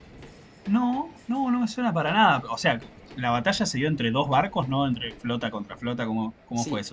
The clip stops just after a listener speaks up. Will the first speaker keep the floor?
No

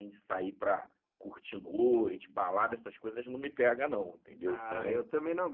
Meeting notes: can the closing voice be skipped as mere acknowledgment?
No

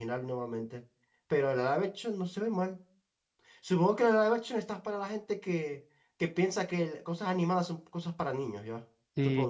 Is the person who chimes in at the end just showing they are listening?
No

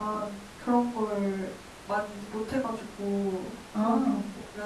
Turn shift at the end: No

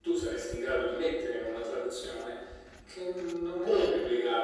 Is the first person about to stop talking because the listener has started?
No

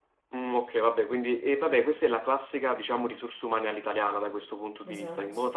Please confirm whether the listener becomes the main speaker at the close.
No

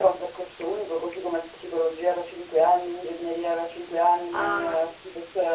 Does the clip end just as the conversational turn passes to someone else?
No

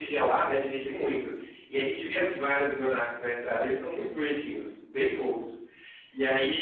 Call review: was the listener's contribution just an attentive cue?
Yes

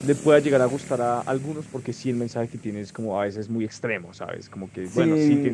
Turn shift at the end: Yes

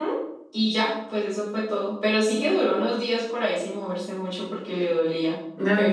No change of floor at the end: No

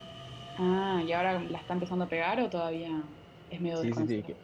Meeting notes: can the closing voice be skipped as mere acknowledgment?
No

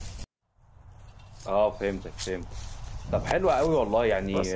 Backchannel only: Yes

